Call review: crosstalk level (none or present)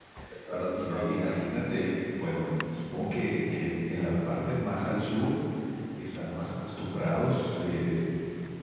present